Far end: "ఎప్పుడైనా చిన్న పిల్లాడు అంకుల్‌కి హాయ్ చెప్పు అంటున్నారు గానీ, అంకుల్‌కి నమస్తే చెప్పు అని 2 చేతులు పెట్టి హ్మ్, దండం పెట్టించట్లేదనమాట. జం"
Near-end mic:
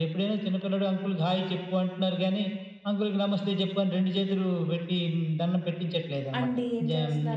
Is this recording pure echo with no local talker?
No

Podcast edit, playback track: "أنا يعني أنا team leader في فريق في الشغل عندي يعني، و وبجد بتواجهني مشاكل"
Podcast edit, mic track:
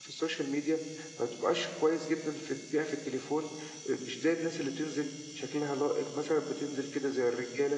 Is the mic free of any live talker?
No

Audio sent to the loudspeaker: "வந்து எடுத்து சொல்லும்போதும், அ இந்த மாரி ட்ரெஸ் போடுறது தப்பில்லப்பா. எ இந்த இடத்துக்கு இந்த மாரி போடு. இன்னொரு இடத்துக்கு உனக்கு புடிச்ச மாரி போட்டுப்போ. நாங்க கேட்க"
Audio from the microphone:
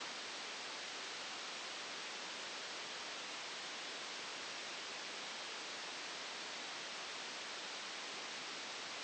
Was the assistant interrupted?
No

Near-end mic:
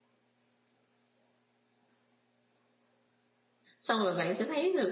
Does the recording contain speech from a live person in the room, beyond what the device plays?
Yes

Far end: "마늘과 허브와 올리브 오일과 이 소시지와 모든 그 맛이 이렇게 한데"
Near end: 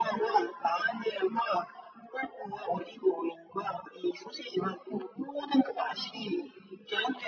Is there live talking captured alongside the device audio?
No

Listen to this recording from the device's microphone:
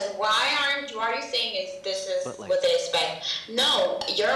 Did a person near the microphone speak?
Yes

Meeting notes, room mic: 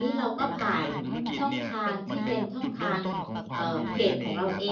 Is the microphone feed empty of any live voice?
No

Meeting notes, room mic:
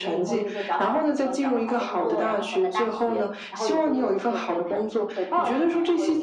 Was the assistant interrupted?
No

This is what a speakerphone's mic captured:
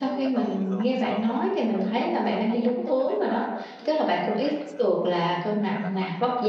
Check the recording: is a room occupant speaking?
Yes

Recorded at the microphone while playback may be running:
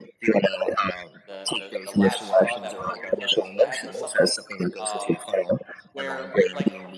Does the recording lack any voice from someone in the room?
No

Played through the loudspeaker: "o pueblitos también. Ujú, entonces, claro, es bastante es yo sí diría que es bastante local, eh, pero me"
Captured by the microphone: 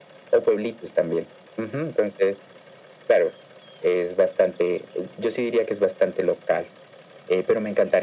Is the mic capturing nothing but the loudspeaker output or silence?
Yes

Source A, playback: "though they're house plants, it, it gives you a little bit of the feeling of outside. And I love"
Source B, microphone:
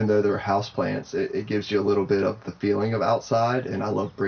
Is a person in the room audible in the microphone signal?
No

